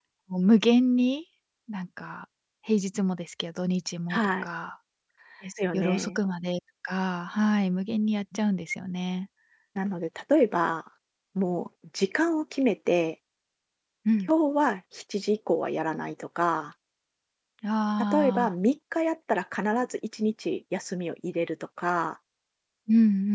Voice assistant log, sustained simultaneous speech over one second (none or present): none